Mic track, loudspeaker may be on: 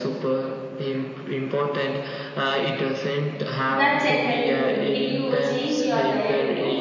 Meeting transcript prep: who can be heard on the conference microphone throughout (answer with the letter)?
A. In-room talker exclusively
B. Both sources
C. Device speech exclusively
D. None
B